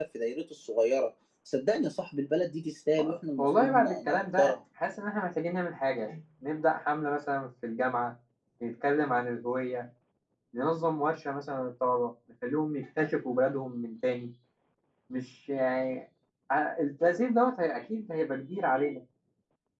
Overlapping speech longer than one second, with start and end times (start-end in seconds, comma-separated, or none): 3.0-4.5